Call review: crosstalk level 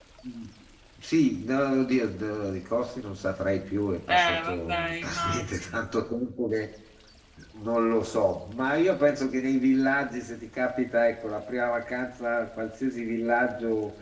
present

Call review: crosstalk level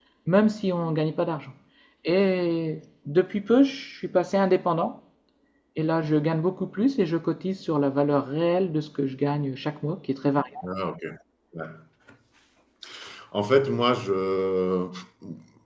none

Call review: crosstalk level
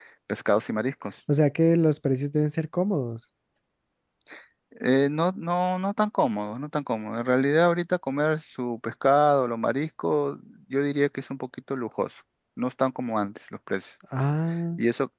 none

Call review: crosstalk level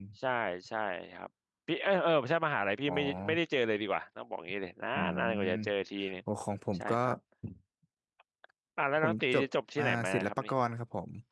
present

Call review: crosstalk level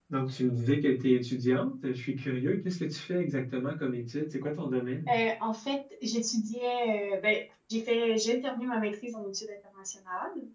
none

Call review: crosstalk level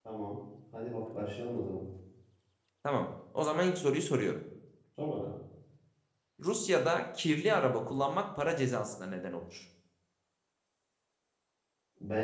none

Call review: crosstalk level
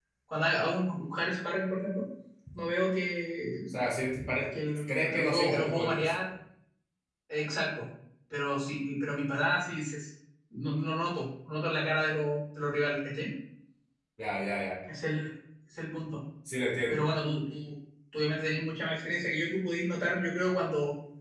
present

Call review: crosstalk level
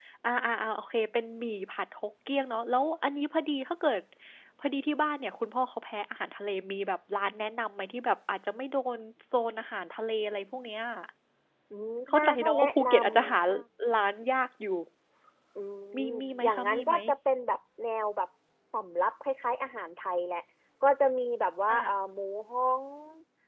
present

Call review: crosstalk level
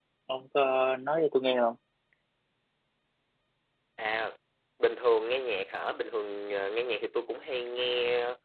none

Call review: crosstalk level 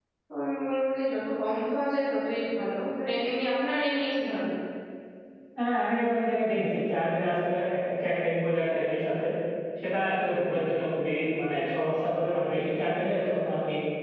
none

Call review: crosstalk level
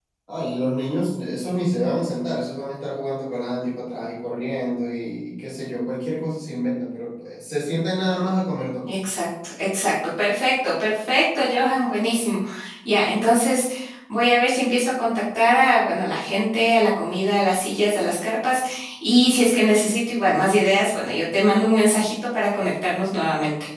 none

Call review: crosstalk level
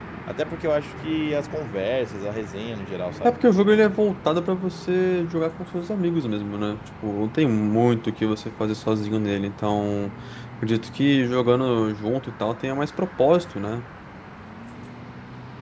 none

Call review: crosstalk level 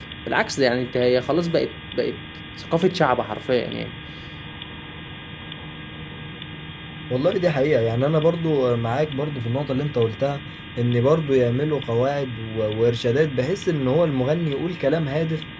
none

